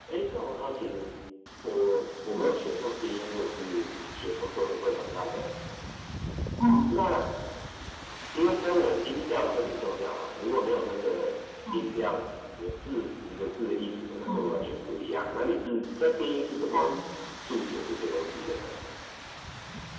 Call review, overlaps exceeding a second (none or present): none